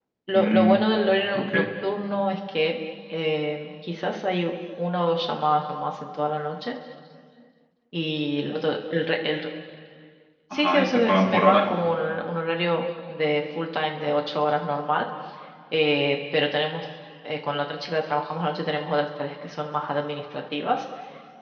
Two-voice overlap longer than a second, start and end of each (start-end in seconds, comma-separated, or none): 10.5-11.7